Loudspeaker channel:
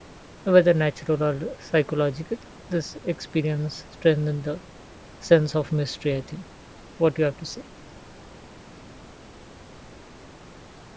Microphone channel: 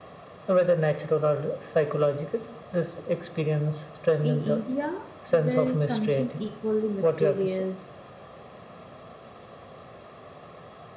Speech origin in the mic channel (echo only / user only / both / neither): both